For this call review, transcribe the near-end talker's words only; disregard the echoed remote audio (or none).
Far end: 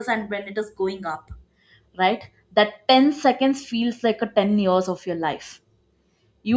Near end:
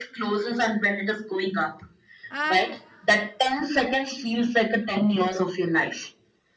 And